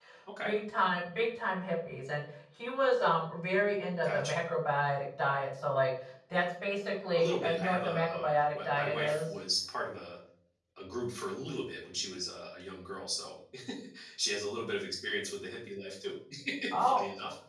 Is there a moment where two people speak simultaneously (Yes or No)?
Yes